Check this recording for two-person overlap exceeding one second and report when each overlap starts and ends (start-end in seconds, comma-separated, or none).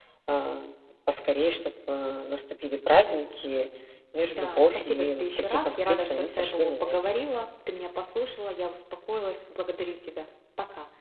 4.3-7.0